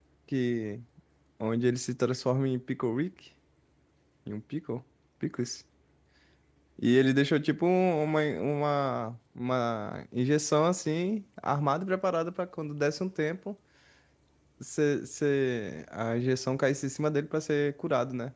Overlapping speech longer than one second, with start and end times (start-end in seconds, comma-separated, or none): none